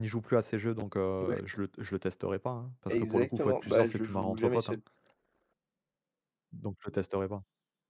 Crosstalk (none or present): present